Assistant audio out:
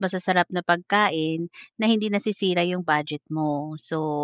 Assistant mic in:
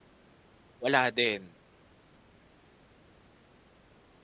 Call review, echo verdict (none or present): none